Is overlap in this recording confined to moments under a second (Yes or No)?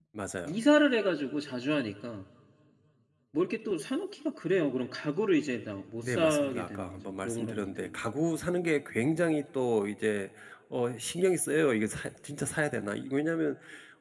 No